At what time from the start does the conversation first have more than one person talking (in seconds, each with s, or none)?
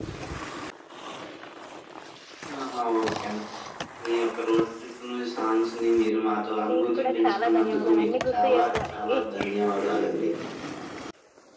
6.7 s